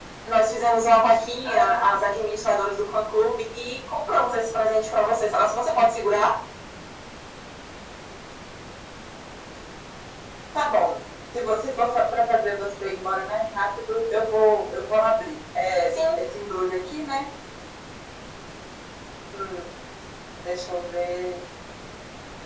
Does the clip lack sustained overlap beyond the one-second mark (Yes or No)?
Yes